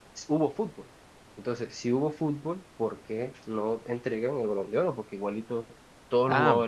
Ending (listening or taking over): taking over